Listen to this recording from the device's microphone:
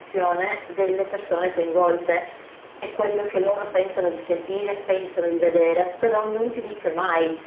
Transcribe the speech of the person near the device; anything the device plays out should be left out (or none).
none